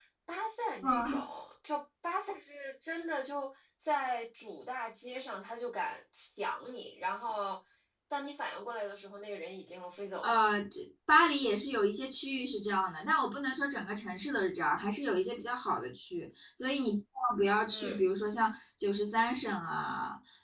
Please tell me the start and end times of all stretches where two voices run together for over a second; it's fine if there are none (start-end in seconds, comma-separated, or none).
none